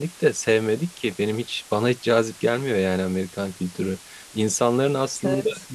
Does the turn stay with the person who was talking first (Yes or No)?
Yes